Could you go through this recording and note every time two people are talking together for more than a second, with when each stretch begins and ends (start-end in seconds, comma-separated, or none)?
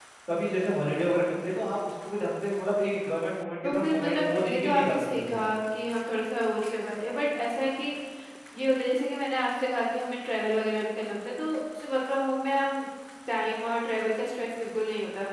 3.6-5.4